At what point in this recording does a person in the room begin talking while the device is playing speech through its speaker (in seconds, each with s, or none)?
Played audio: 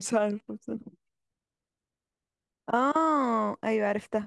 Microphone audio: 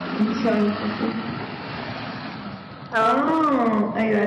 2.9 s